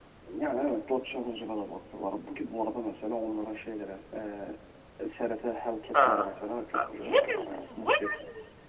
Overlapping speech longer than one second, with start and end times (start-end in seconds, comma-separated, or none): 6.7-8.2